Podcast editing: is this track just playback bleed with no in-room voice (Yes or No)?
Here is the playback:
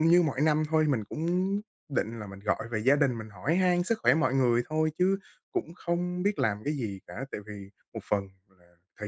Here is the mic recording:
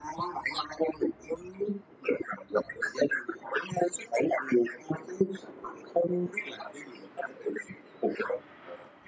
Yes